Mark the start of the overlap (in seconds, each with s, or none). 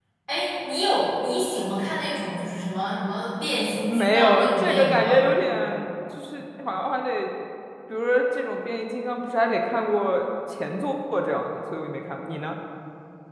3.9 s